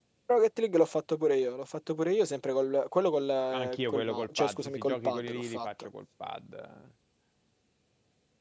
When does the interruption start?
3.5 s

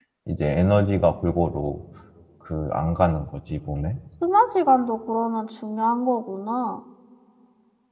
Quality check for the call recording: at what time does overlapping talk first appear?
none

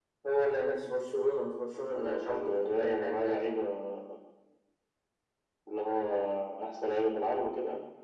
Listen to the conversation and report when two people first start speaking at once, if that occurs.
1.9 s

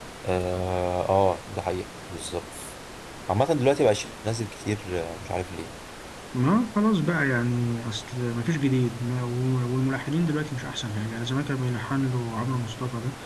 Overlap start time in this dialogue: none

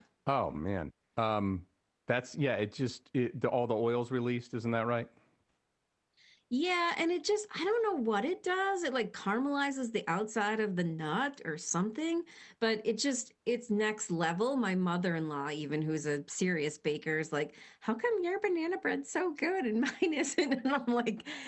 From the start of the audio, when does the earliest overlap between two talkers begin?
none

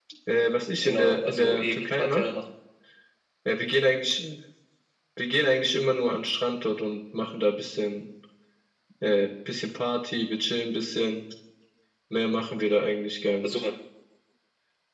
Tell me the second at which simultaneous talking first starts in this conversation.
0.8 s

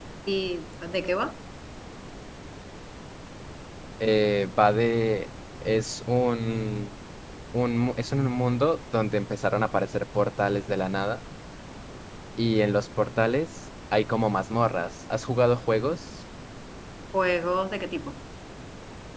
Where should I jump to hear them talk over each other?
none

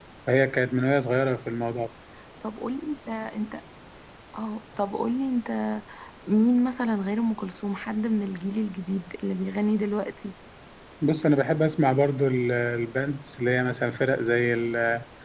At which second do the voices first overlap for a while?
none

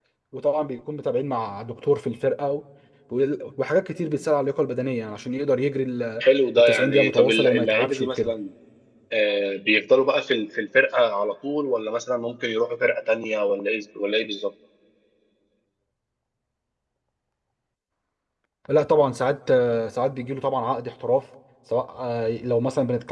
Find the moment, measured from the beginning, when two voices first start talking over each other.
6.6 s

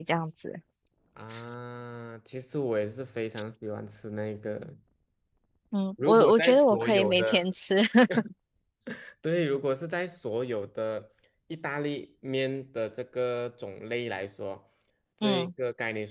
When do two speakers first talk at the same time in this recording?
6.0 s

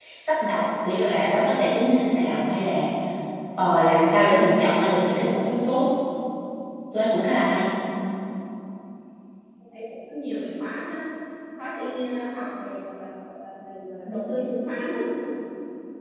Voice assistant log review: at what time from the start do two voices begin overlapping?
none

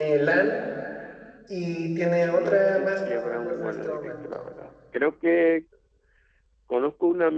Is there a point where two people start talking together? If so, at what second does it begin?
2.3 s

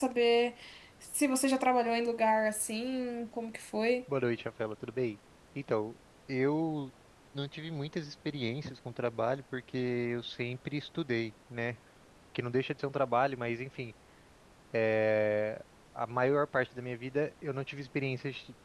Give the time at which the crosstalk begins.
none

